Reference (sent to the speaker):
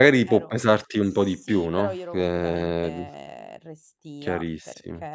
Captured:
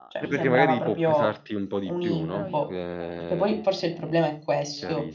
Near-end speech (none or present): present